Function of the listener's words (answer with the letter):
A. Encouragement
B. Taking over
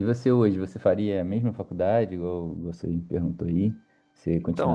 B